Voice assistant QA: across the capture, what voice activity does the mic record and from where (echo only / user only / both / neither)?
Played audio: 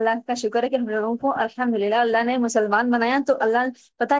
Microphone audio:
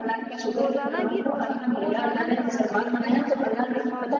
both